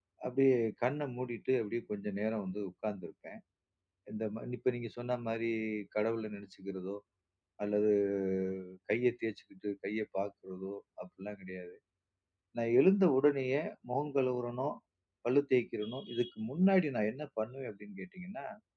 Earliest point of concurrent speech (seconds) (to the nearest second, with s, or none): none